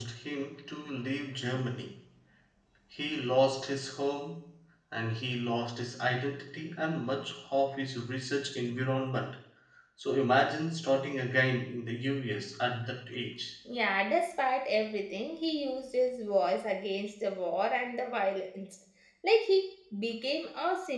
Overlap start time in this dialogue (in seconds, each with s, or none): none